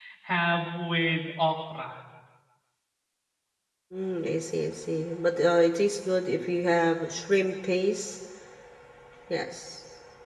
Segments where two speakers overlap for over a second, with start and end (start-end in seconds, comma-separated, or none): none